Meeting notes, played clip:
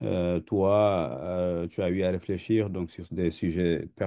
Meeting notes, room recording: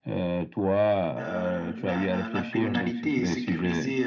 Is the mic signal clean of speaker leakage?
No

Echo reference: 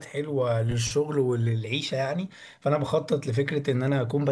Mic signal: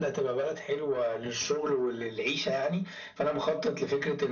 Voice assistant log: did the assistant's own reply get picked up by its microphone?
Yes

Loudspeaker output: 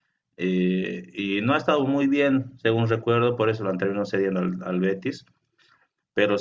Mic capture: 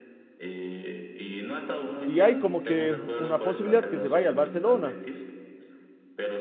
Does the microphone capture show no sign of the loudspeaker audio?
No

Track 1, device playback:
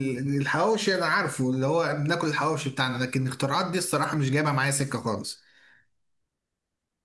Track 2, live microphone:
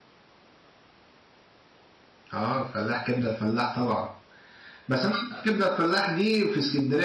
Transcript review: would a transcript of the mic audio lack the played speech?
Yes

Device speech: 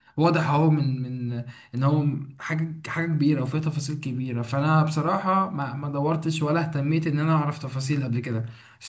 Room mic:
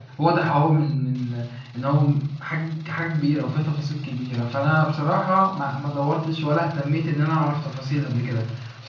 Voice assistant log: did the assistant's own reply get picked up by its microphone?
Yes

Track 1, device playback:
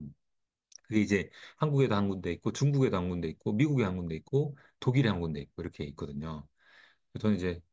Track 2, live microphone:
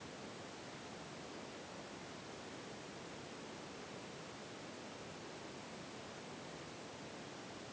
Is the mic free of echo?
Yes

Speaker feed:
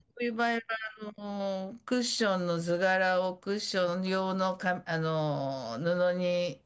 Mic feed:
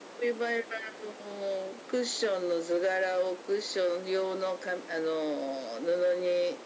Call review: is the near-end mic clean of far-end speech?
No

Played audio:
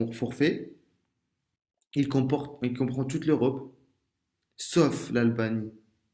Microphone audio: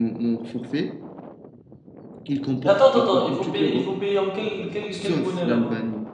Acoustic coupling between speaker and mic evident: Yes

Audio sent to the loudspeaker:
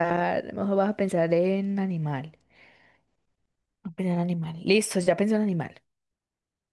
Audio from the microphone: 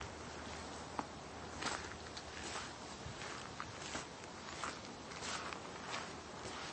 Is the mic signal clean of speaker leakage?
Yes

